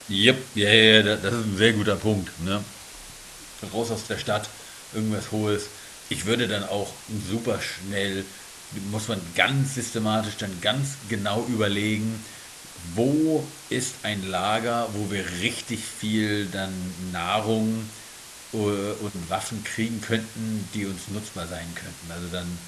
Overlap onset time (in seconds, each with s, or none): none